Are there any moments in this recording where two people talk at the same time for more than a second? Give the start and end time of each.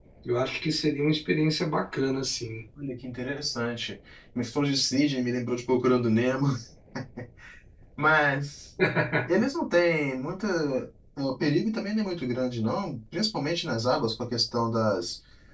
none

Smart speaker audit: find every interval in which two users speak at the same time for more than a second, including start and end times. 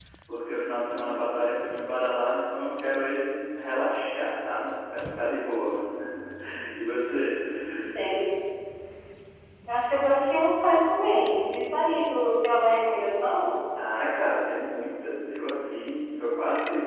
none

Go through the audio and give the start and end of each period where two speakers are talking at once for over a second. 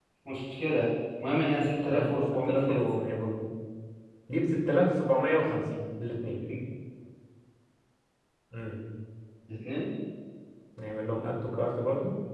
1.6-2.8

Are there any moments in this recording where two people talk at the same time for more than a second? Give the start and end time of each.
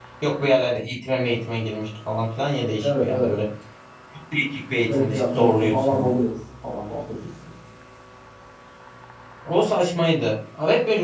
4.8-6.2

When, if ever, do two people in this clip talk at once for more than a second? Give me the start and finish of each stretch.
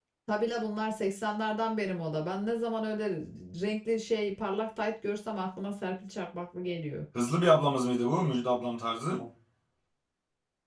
none

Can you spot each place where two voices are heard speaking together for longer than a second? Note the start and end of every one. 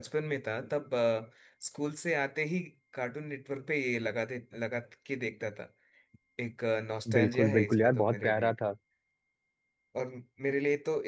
7.2-8.5

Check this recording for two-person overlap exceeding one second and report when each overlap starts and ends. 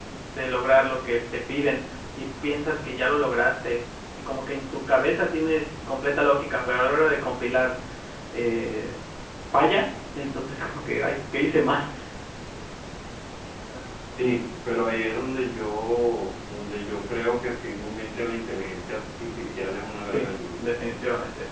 none

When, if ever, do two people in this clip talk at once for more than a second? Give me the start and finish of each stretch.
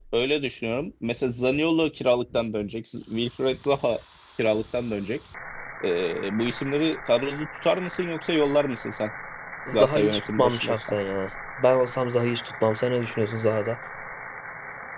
9.7-11.0

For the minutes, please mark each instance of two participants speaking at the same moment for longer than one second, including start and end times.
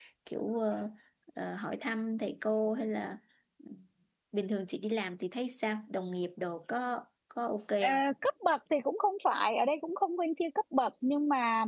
none

